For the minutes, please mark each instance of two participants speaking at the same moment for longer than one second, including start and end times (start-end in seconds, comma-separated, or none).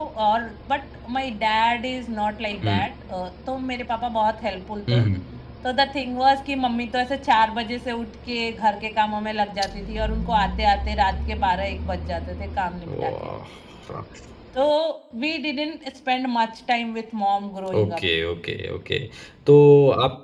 none